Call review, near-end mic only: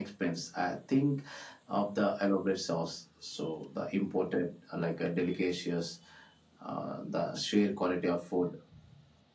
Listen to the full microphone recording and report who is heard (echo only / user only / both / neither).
echo only